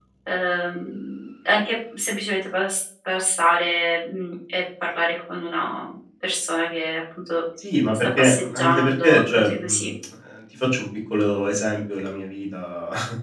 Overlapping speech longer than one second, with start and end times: 8.2-9.9

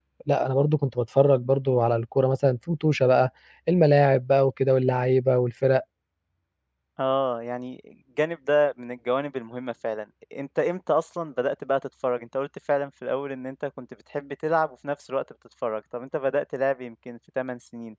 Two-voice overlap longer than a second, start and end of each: none

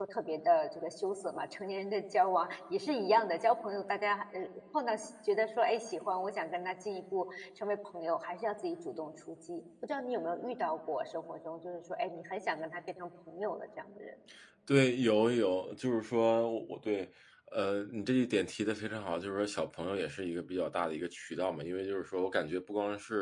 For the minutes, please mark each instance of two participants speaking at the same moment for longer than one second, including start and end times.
none

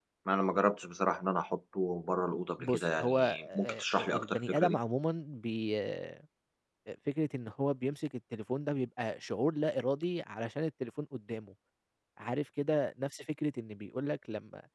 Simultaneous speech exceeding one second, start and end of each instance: 2.6-4.8

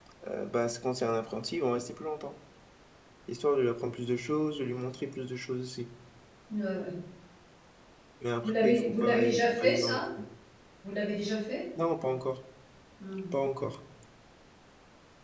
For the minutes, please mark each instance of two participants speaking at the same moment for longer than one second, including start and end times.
8.4-10.0

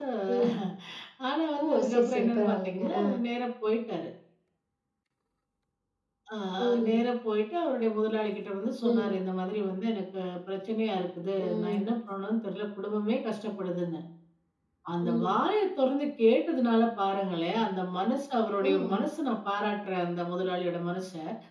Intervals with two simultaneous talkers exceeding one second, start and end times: 1.6-3.0

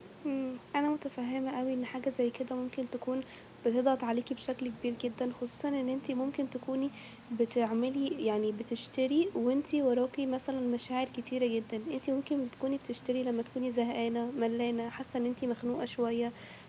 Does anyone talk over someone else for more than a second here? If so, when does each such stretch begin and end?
none

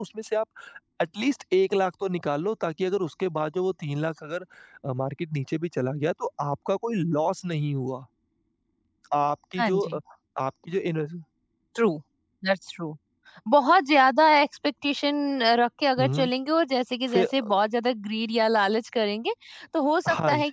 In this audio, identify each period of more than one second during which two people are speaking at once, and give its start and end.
none

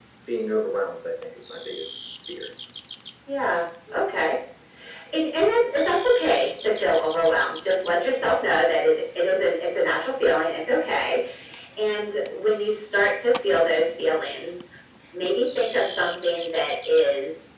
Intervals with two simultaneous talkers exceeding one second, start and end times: none

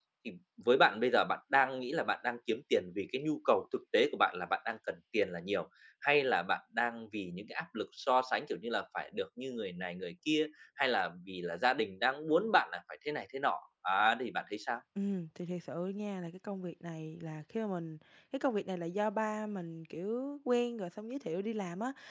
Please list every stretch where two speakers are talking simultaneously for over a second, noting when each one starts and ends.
none

